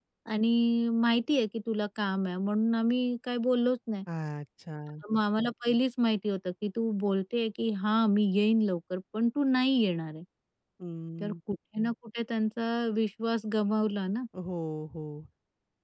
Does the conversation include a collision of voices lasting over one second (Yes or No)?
No